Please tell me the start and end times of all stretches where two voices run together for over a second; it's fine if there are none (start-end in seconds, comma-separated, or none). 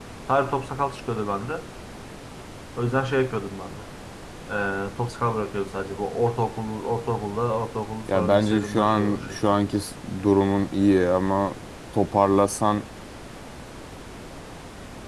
8.1-9.5